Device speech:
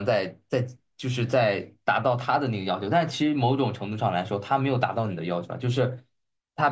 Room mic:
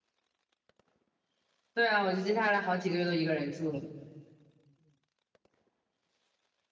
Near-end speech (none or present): present